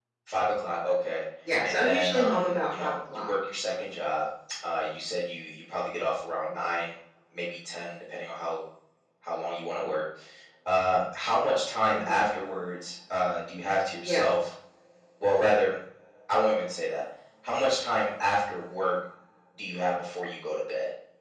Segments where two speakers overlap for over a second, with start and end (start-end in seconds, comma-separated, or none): 1.6-3.3